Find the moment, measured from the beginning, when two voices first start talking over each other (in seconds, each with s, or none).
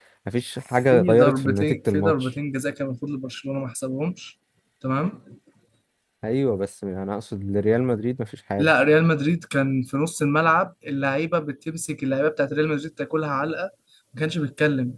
0.9 s